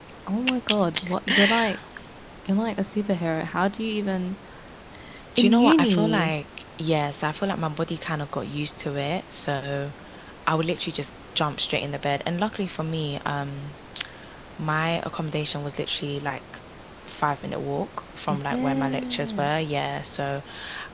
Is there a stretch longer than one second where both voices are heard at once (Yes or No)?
Yes